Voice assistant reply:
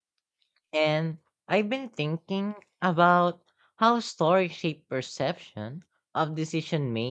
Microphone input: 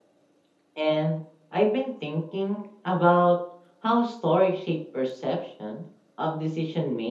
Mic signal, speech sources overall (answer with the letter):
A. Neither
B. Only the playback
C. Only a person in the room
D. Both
B